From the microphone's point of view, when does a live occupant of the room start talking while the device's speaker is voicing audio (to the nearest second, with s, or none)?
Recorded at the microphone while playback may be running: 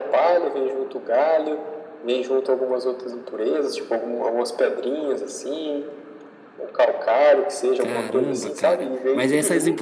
8 s